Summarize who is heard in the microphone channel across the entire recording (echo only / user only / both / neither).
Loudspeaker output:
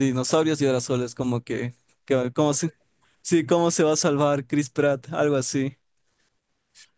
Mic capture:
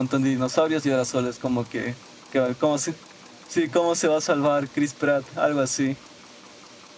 echo only